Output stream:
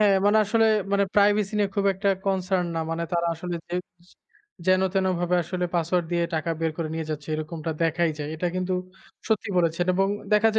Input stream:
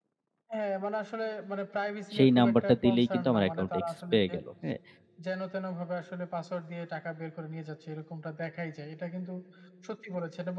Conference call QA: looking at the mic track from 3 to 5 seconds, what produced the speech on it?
both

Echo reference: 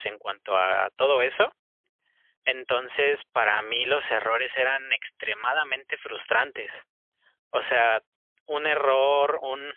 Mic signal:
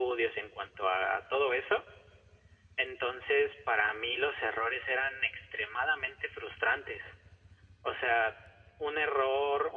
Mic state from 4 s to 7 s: echo only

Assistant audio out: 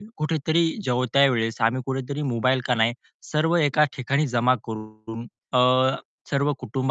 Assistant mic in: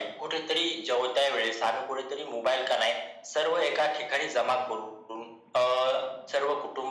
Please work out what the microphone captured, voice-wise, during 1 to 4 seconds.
echo only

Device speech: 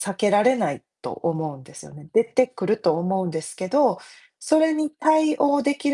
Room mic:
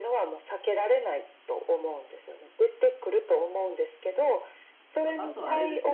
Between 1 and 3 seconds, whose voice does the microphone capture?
echo only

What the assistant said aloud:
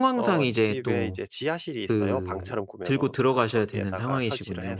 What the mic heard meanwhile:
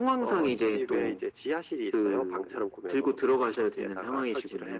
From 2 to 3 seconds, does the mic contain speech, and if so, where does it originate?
echo only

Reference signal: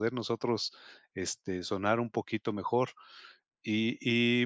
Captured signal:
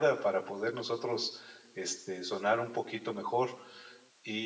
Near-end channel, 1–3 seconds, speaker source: echo only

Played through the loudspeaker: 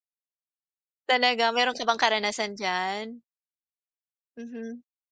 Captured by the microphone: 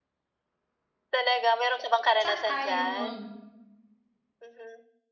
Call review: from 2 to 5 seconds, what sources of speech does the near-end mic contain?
both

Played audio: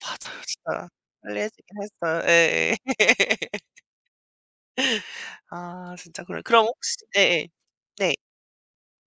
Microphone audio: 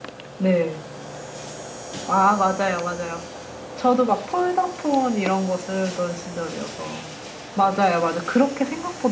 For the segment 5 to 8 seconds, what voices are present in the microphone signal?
user only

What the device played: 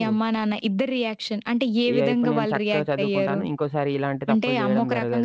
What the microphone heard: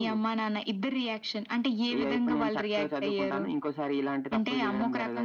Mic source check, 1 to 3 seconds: echo only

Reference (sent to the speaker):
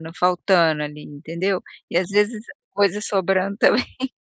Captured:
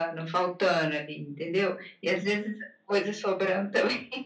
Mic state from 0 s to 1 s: echo only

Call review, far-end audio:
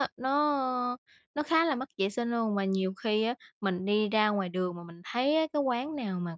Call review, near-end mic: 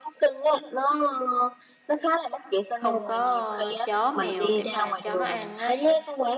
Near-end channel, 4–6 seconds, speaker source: both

